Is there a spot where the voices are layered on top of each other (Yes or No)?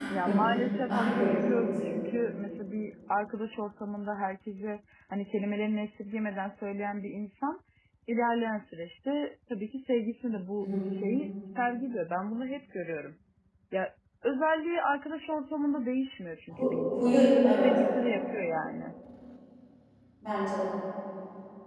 Yes